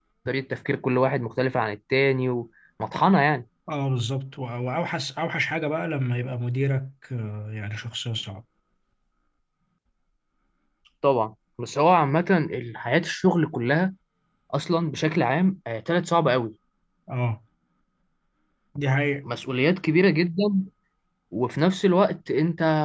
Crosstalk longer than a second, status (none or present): none